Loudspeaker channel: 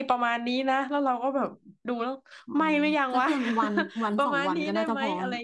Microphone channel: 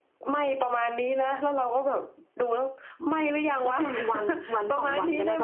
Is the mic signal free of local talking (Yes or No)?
Yes